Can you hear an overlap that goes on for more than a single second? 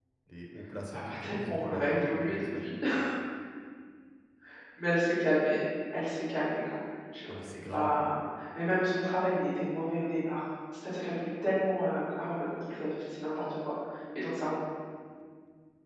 Yes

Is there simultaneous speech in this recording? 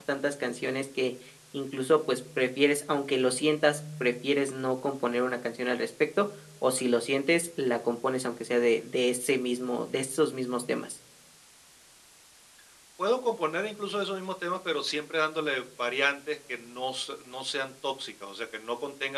No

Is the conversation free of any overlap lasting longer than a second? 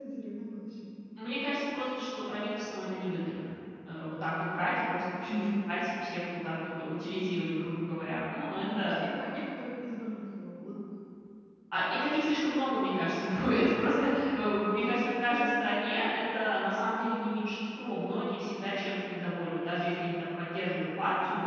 Yes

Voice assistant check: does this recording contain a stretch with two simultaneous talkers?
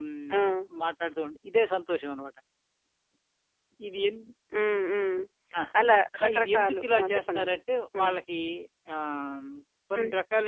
Yes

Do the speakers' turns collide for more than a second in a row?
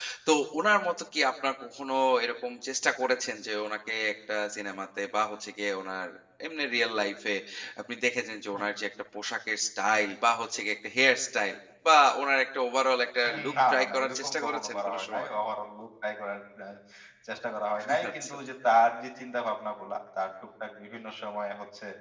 Yes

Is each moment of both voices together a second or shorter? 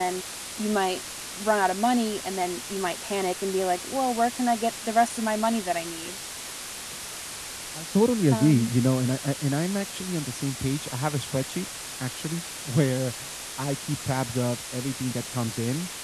Yes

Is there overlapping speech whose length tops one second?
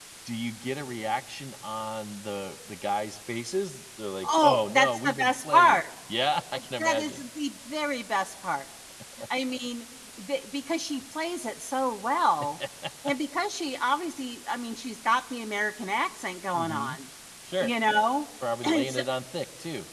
Yes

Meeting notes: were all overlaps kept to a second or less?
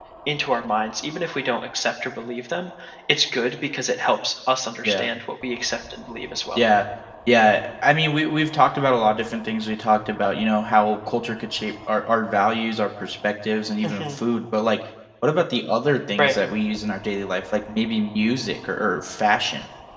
Yes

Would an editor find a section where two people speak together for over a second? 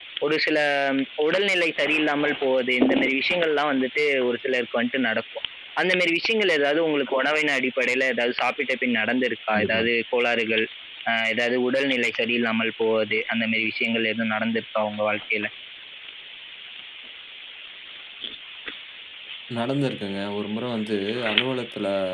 No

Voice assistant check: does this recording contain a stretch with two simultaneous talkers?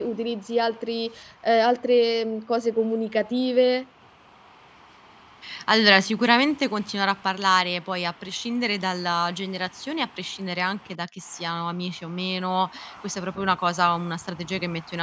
No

